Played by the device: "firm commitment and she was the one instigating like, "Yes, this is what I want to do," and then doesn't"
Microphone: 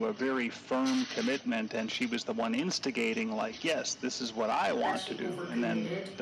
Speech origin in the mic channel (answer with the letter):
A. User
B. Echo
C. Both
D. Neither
C